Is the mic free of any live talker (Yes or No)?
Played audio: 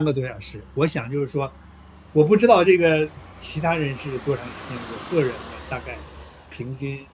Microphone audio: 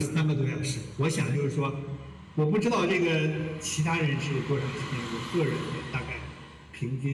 Yes